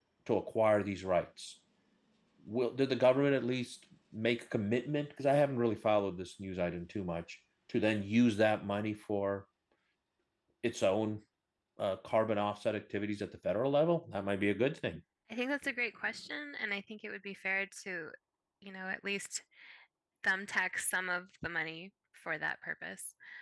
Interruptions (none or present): none